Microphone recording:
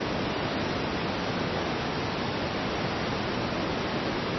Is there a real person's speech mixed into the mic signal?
No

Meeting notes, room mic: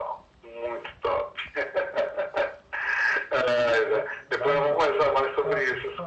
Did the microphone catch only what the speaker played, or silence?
No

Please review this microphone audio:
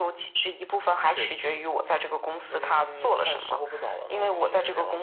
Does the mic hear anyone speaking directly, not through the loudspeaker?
No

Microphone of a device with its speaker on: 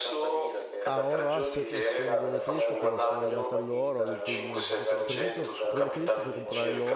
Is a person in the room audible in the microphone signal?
Yes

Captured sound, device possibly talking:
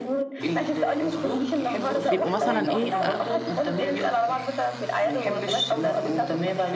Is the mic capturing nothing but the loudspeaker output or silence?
No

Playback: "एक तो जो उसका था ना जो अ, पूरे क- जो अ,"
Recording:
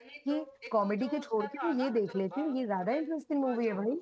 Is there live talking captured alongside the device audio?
Yes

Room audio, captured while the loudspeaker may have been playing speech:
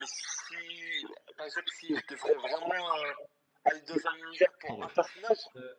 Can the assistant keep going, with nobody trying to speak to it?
No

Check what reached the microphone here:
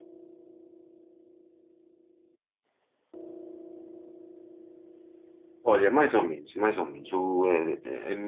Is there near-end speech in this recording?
Yes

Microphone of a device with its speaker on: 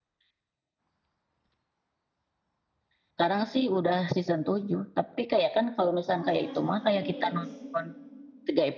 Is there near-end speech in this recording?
Yes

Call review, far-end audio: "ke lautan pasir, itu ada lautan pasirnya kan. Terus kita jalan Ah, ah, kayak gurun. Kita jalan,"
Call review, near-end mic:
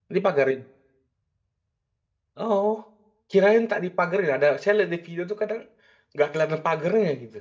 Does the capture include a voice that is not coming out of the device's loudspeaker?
Yes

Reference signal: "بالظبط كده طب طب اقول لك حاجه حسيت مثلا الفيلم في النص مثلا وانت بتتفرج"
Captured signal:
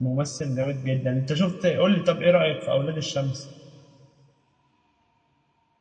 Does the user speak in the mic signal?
Yes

